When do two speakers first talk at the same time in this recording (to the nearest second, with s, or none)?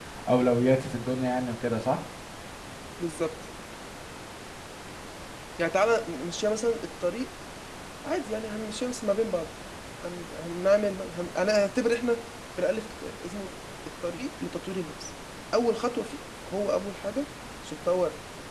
none